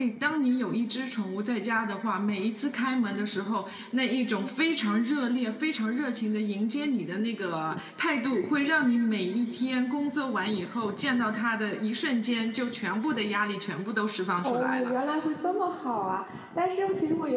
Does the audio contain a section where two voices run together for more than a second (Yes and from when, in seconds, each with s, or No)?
No